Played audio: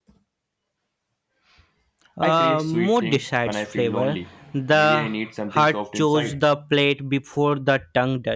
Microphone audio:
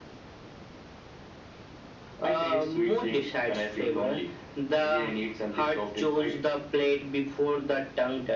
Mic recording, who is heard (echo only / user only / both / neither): echo only